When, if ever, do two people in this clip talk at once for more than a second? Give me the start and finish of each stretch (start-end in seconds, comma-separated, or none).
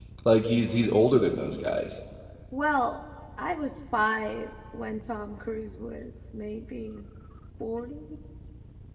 none